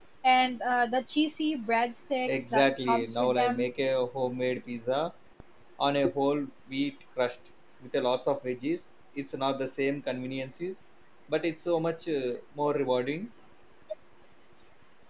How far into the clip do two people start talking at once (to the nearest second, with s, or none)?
2 s